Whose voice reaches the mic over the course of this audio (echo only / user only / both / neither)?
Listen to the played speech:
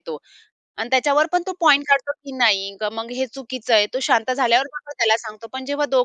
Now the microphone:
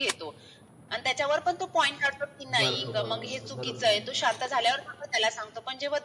both